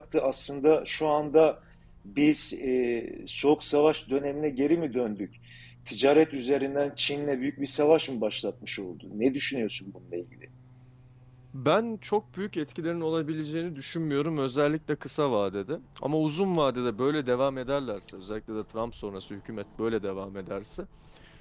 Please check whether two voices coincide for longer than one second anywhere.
No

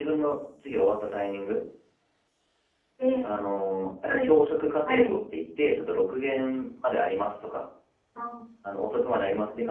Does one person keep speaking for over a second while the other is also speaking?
No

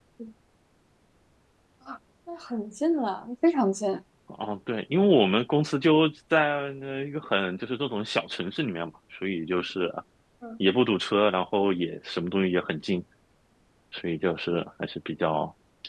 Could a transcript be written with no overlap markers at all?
Yes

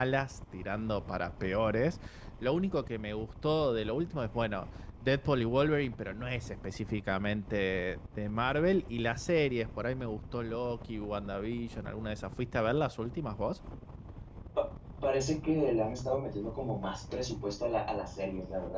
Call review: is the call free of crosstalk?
Yes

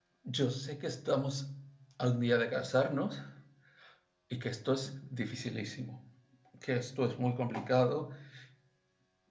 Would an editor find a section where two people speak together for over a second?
No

